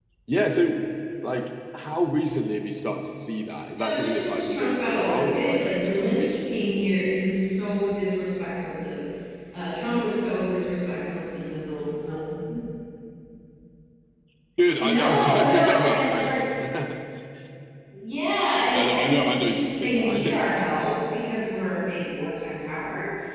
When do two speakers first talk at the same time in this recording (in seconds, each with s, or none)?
3.8 s